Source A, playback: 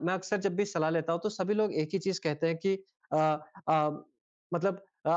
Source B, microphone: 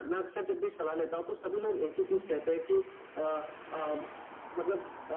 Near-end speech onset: 2 s

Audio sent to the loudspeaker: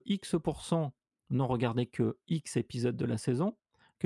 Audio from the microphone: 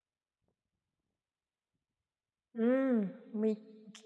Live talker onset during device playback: 3 s

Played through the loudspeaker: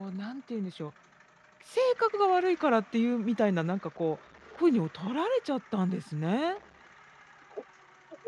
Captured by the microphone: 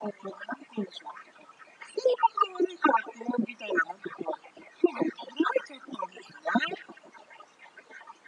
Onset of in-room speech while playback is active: none

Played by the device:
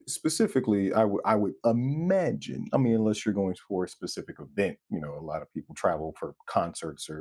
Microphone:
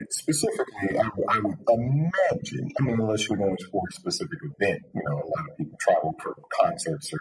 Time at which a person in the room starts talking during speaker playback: none

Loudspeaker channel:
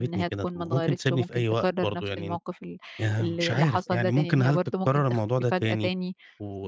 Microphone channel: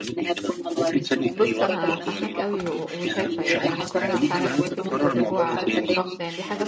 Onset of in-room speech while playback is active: 1 s

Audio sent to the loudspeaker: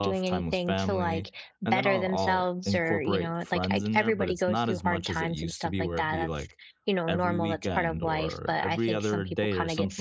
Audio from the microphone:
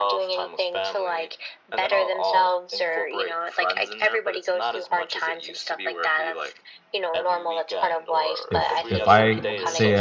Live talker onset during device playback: 8 s

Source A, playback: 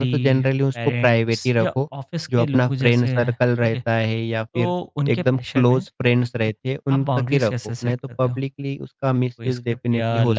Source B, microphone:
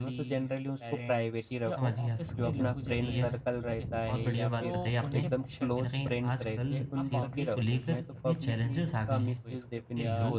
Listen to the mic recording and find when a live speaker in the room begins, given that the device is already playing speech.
2 s

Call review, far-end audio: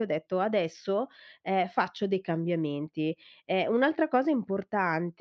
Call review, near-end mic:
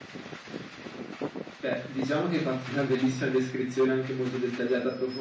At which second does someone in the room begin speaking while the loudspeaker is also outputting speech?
2 s

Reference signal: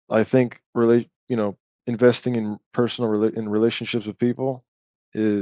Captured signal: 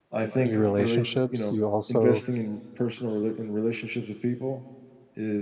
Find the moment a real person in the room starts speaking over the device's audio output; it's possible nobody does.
0 s

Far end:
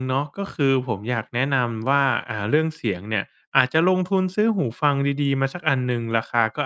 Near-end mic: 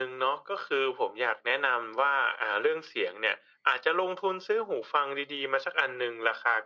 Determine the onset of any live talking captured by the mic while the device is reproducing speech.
none

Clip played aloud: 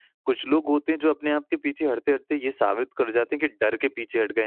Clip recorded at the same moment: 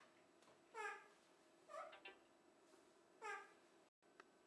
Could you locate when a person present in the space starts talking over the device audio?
none

